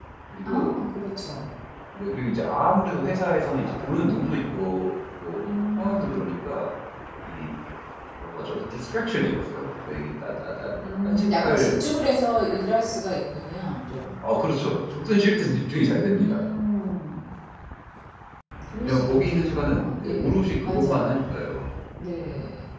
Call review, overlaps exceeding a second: present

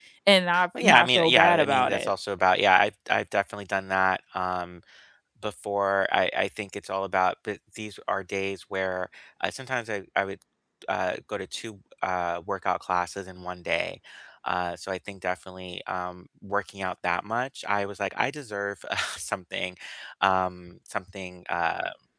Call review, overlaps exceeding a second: present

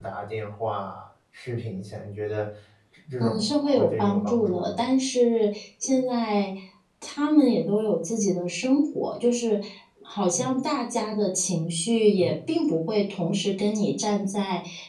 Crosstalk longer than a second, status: present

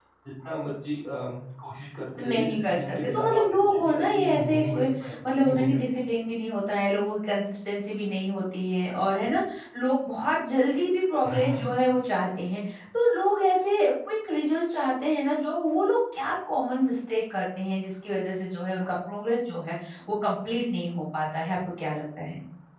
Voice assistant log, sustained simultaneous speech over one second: present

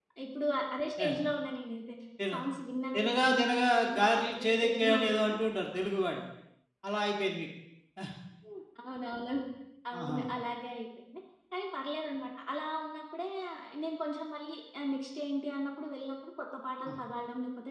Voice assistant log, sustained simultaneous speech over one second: present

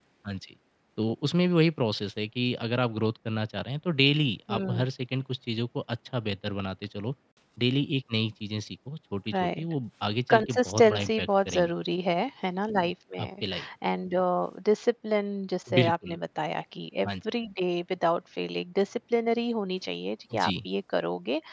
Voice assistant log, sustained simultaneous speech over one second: present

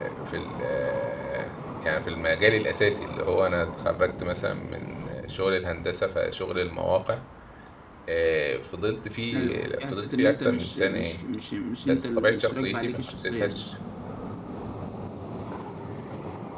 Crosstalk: present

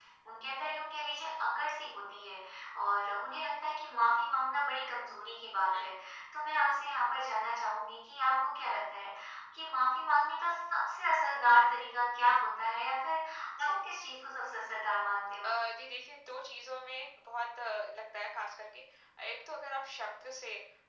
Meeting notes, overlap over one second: none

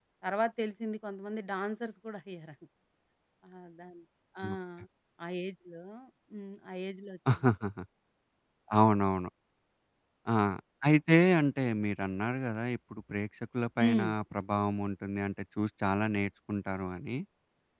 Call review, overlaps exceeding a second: none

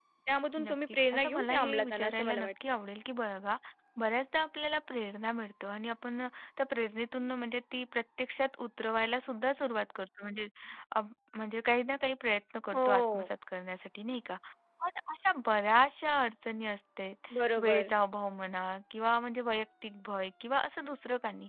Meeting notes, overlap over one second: present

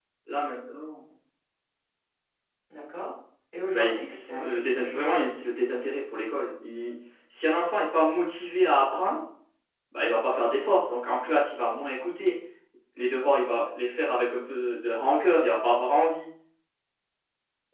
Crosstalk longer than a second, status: present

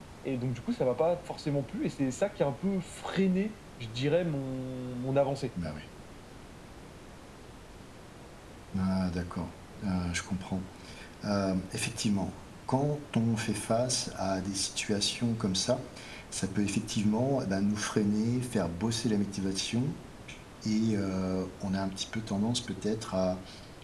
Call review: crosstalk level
none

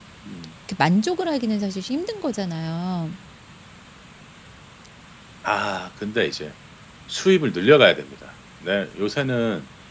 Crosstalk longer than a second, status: none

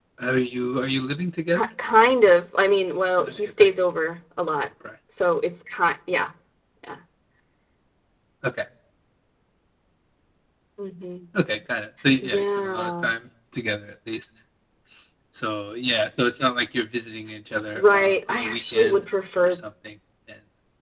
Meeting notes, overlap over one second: present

